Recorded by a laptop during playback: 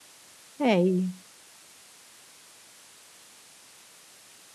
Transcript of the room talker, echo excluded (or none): é aí,